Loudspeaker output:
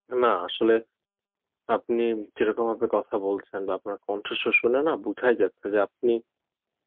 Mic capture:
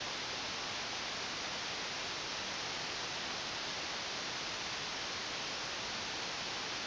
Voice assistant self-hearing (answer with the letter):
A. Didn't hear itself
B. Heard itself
A